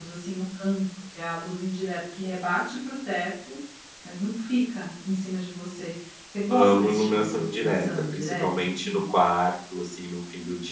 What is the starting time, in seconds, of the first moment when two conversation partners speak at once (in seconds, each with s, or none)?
6.5 s